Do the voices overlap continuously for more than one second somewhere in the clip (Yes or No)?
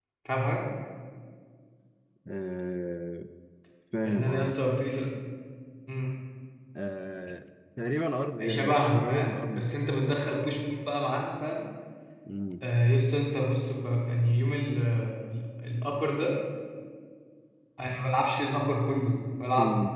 Yes